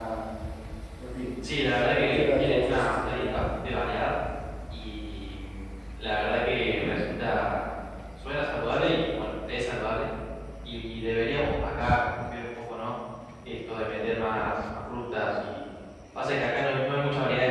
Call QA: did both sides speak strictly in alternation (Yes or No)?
No